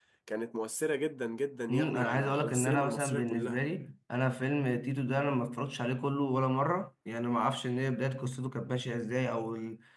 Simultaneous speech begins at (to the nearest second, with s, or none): 2 s